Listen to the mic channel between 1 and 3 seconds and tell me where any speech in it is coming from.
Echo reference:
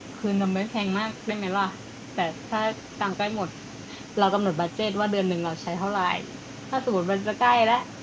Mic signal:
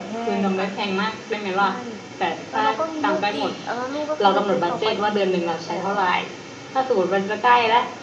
both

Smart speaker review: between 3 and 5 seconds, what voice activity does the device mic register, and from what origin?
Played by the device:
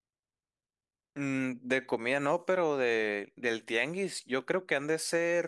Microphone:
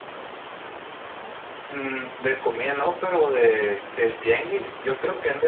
echo only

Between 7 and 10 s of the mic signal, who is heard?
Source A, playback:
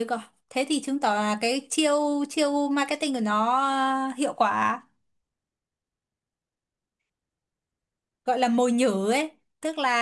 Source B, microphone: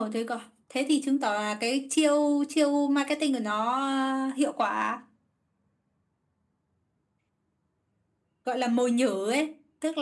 echo only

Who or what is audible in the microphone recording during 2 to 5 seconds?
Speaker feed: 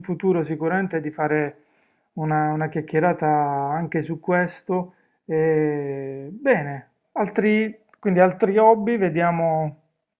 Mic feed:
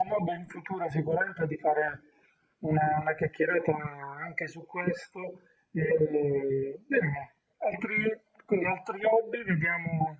echo only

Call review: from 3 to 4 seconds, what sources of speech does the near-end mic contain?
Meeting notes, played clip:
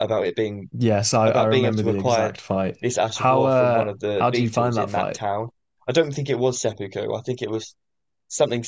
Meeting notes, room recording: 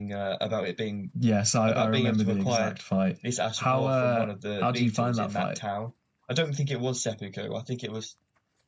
echo only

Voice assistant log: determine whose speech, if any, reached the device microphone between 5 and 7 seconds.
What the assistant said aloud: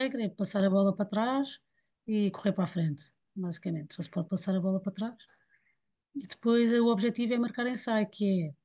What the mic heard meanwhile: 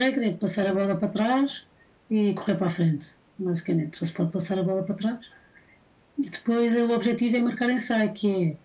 echo only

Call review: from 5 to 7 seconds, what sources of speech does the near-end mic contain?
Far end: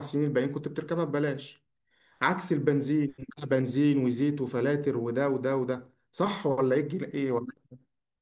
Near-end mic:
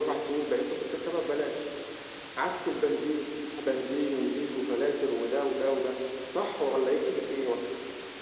echo only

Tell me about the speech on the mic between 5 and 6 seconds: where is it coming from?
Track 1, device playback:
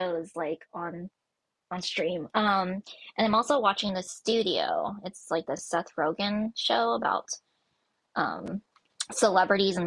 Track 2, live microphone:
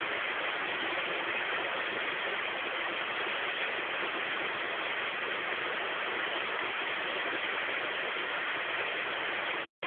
neither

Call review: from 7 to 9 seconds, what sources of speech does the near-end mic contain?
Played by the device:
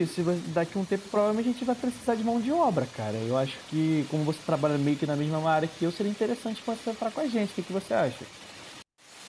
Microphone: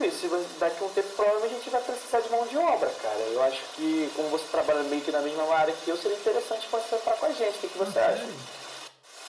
both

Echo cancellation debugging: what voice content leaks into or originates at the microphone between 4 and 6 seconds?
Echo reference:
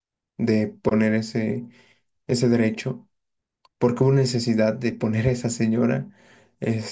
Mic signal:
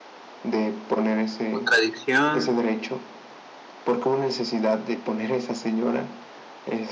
echo only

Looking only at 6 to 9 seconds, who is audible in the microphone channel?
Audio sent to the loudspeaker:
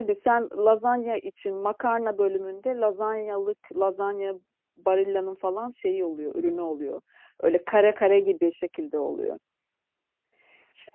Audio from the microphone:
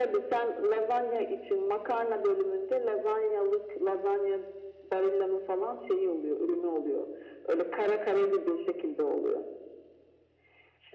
echo only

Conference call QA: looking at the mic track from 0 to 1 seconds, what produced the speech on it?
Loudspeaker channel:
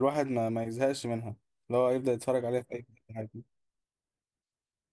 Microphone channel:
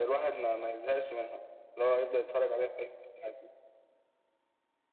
echo only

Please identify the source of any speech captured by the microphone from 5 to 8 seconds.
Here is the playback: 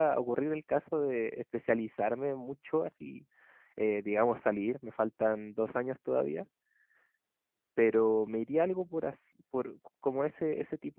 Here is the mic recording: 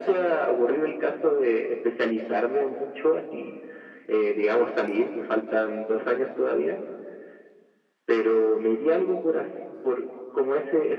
echo only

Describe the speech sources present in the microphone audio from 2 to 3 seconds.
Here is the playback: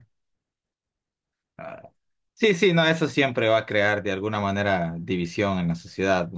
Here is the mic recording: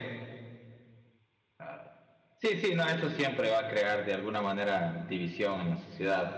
echo only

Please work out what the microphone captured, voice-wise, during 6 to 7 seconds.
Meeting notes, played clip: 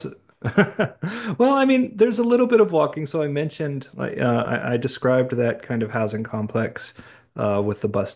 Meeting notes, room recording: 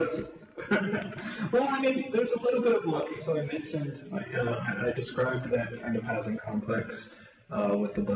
echo only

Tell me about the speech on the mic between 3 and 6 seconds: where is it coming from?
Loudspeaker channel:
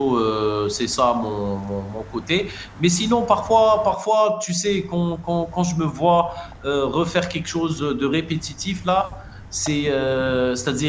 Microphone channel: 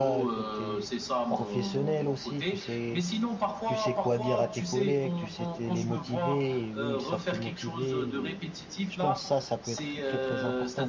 both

